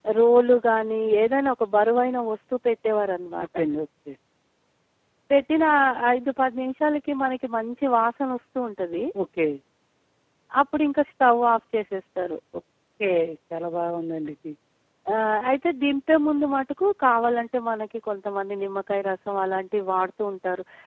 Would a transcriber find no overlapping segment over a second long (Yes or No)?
Yes